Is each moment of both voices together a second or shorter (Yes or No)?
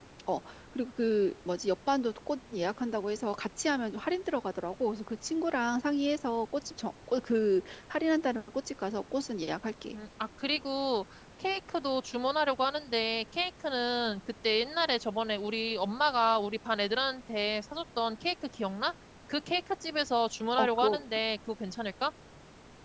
Yes